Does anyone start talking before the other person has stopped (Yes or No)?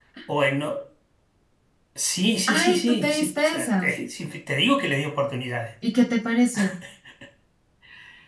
Yes